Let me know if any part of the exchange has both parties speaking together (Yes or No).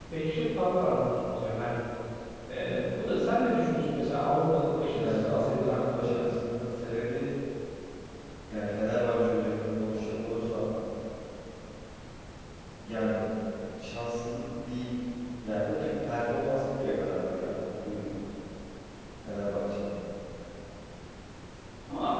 Yes